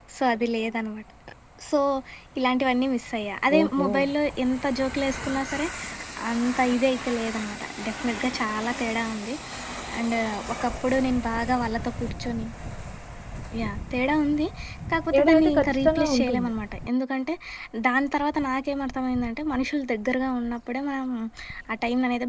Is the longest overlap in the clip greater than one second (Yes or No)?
Yes